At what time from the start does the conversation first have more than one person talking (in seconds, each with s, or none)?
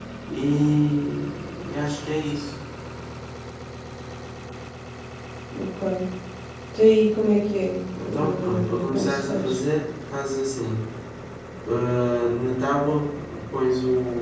8.0 s